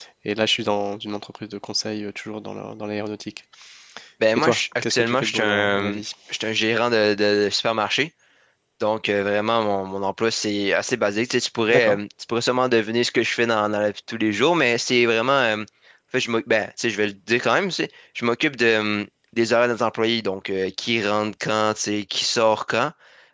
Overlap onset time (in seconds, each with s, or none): 4.3 s